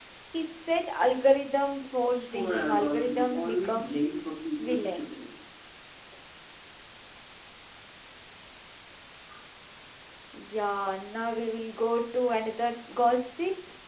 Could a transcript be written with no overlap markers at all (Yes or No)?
No